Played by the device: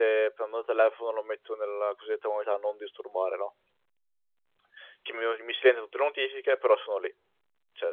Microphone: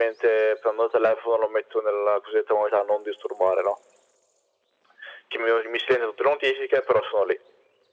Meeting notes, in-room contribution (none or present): none